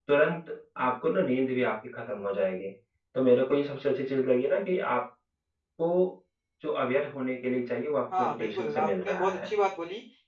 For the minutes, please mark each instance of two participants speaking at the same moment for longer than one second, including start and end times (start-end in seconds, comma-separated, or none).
8.2-9.5